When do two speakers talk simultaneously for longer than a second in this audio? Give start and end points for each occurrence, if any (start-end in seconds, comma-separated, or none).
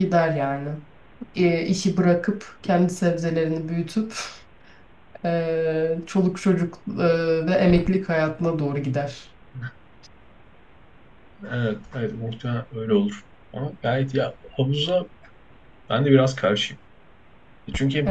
none